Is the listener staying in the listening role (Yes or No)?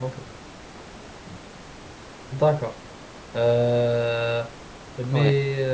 Yes